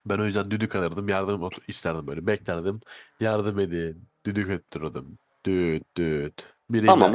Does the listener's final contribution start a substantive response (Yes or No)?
Yes